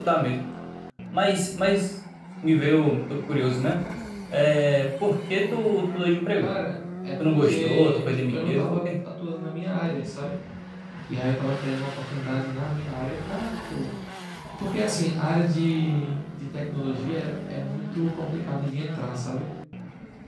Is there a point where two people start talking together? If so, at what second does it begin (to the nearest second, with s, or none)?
7 s